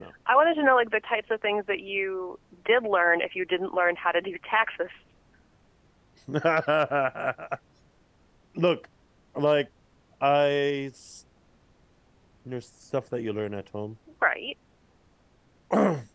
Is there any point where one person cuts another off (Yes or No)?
No